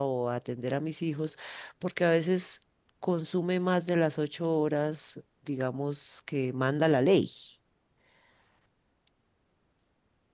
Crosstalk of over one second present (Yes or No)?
No